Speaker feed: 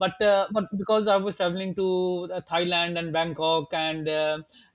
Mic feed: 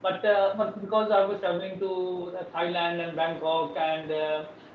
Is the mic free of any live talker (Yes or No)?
Yes